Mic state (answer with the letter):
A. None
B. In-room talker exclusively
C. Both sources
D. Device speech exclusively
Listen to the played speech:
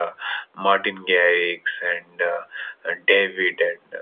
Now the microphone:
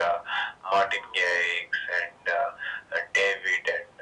D